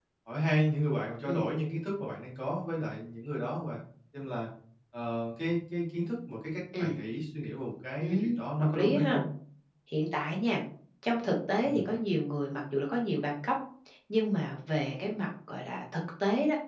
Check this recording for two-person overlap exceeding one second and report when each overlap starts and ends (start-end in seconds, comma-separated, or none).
8.0-9.2